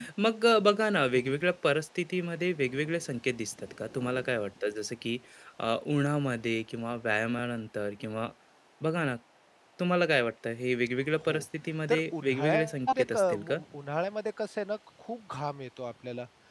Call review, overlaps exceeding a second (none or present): present